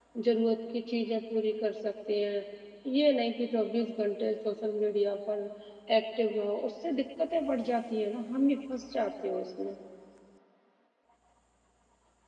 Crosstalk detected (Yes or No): No